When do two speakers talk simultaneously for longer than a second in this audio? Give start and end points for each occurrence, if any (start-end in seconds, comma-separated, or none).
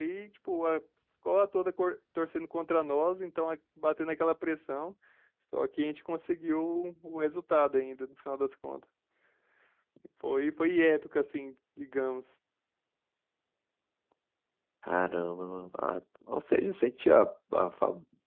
none